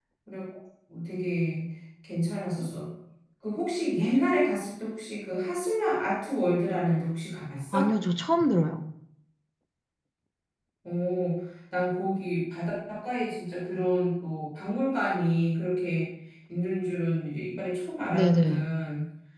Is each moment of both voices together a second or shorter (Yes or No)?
Yes